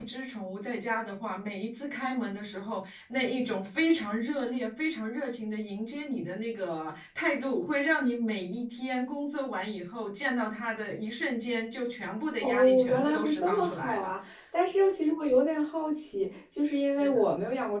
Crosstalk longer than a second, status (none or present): present